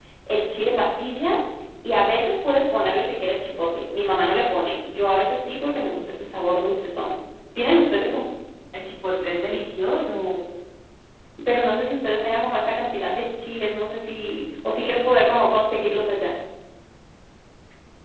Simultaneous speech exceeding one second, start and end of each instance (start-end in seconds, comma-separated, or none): none